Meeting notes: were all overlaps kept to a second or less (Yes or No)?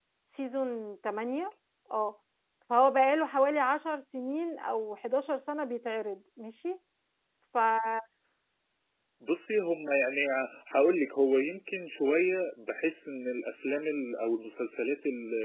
Yes